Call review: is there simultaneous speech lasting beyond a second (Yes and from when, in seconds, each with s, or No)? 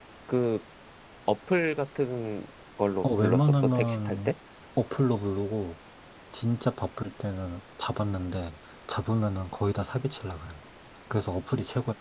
Yes, from 3.0 s